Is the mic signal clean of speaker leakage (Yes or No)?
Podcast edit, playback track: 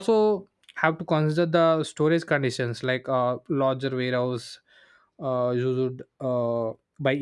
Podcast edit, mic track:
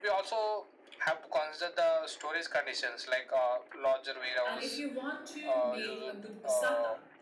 No